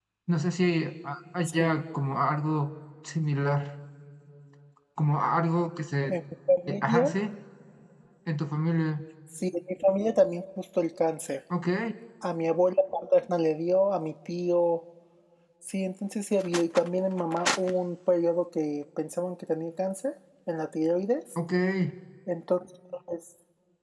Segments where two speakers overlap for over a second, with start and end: none

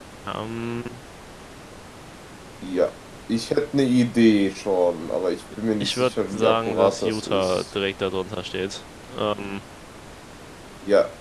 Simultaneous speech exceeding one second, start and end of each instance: 5.8-7.6

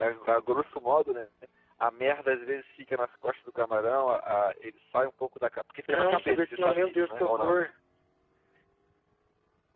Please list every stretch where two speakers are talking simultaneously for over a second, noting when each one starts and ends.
5.9-7.5

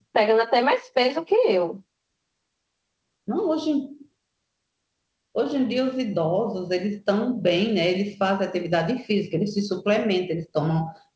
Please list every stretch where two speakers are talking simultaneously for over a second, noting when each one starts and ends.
none

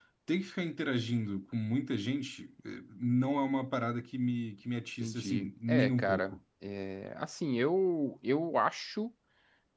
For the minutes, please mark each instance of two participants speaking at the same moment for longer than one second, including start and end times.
5.0-6.3

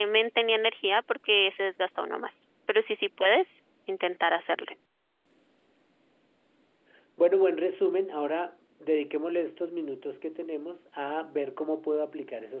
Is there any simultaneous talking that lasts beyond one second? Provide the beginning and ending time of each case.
none

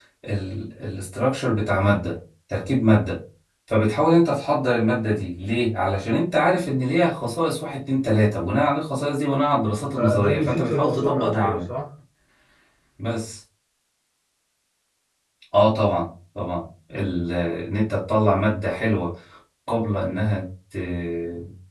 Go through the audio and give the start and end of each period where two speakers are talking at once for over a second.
9.9-11.7

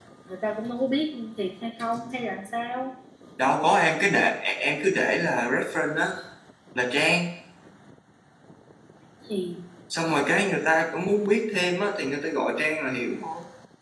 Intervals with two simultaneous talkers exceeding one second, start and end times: none

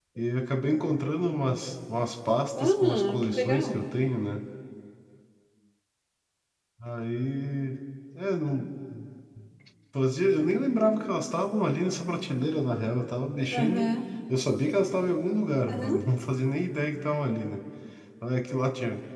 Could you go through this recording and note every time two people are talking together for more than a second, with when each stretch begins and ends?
2.6-3.8

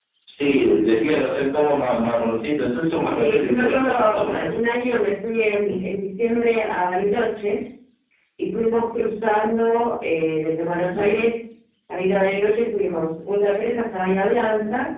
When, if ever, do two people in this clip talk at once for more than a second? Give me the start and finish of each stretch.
3.2-4.5

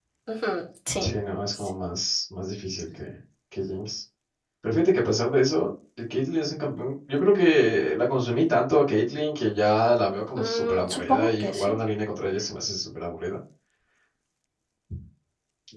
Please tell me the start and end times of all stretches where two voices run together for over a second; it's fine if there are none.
10.4-11.7

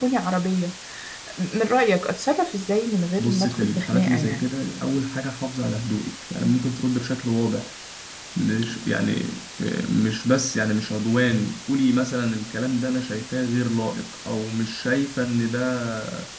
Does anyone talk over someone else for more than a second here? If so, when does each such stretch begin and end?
3.2-4.4

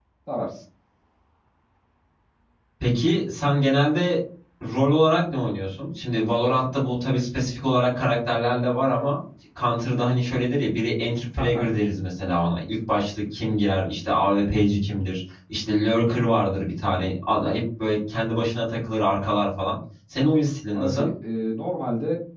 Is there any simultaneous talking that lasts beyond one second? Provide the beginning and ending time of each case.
none

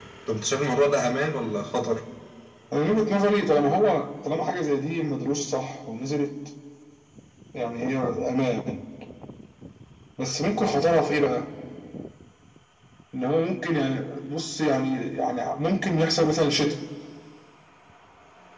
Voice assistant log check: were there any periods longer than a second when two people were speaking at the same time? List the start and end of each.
none

